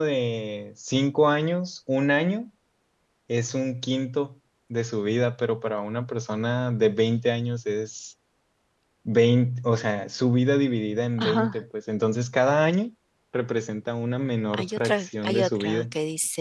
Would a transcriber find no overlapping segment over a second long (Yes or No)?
No